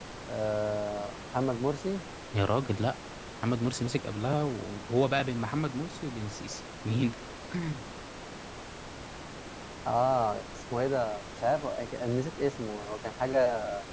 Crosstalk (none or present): none